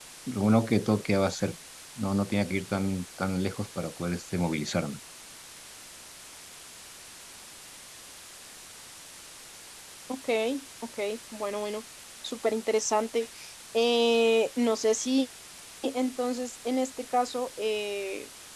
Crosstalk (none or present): none